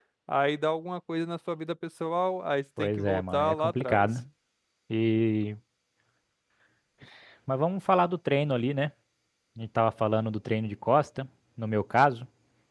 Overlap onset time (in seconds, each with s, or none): 2.8 s